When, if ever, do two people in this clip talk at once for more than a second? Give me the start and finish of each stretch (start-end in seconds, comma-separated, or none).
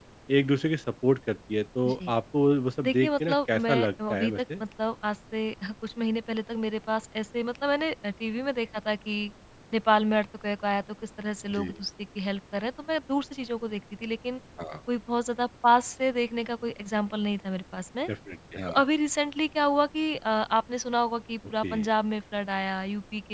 2.8-4.3